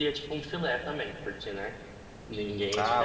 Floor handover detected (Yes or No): Yes